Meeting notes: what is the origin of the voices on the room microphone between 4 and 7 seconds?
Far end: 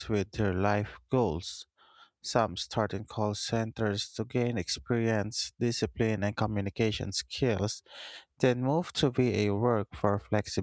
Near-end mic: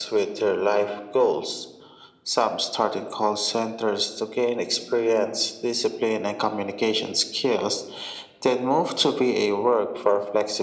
echo only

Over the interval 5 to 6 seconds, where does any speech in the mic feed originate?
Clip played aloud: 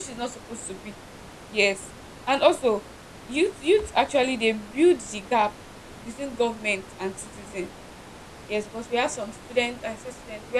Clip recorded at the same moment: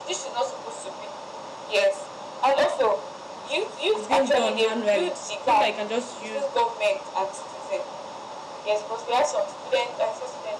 both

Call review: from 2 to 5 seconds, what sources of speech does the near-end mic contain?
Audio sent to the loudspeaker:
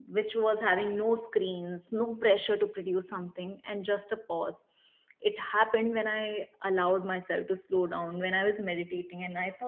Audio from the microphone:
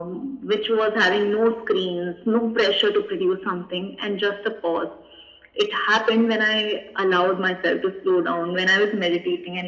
echo only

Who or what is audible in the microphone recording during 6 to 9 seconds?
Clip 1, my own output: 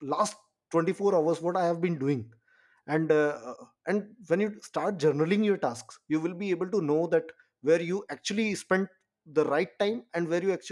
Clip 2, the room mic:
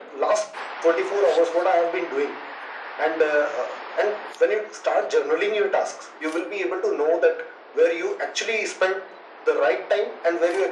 echo only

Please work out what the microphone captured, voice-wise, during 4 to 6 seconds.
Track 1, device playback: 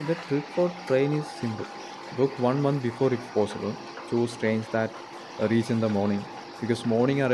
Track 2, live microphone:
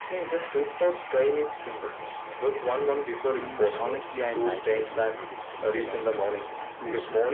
both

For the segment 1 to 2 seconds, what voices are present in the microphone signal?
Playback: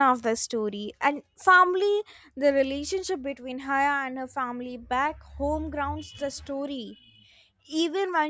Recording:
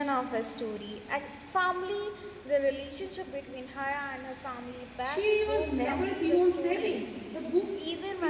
echo only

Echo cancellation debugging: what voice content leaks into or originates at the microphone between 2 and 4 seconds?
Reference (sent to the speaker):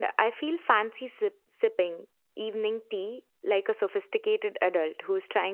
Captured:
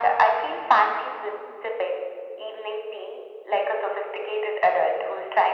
echo only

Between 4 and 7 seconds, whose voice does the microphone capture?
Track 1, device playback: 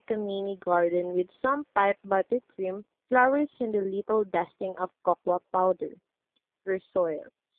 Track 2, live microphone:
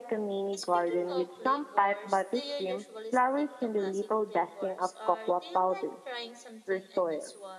both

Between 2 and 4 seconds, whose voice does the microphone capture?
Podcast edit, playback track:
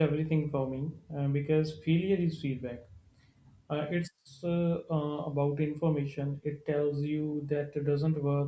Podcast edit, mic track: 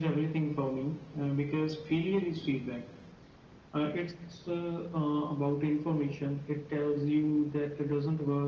echo only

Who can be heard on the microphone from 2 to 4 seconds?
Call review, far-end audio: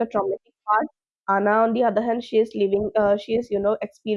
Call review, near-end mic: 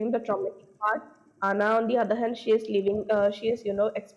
echo only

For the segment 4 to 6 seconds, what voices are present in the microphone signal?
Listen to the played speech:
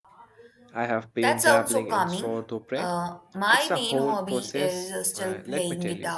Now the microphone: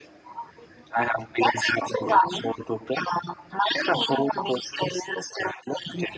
echo only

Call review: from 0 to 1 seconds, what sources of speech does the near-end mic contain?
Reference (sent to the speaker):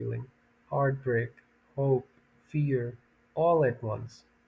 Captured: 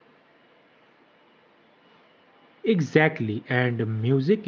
neither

